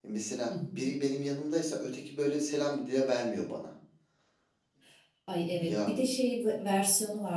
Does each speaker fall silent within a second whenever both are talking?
Yes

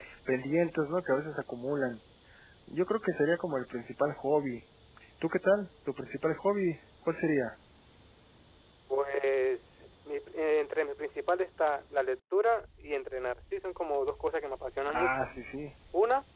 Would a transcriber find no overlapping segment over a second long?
Yes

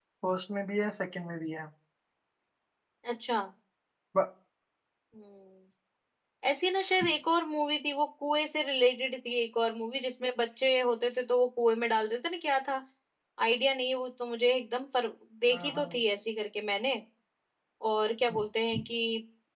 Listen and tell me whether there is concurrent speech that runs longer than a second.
No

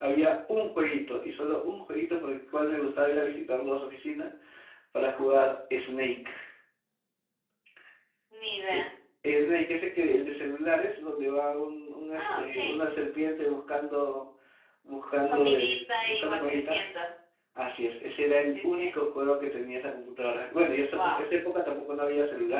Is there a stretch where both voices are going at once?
Yes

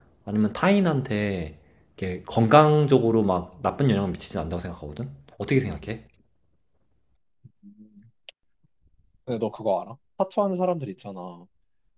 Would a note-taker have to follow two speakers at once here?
No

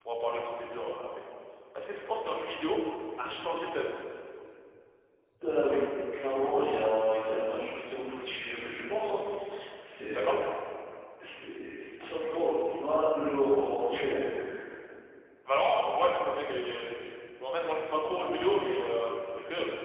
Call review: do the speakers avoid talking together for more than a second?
Yes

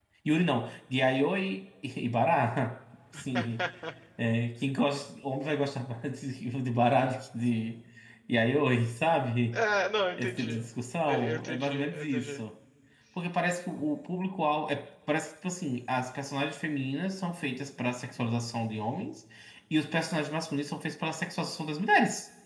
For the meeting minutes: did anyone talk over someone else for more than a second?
Yes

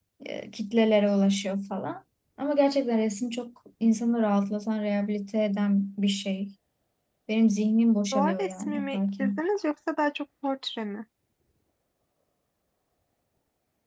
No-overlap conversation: No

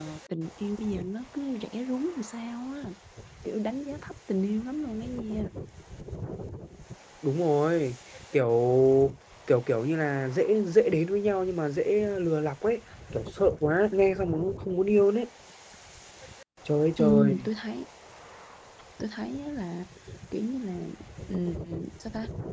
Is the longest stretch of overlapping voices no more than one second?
Yes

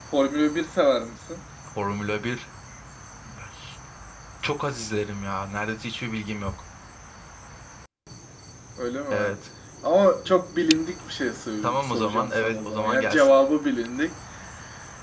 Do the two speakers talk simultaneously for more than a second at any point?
Yes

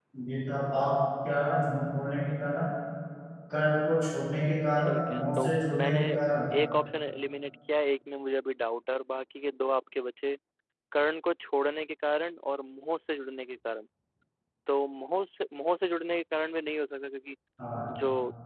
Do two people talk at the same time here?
Yes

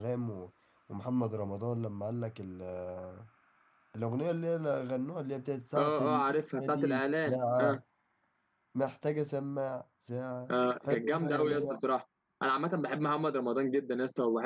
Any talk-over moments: Yes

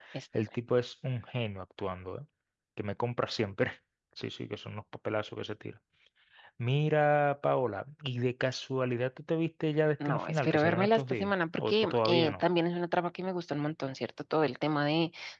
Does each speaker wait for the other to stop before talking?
No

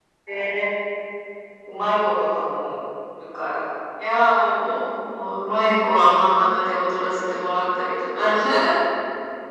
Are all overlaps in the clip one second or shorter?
Yes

